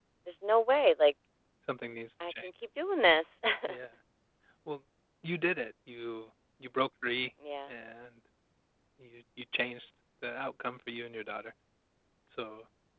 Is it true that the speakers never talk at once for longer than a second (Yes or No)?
Yes